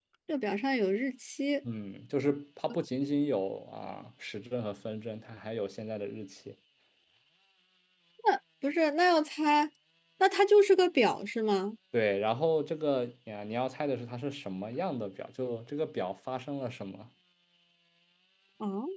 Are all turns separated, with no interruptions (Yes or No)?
Yes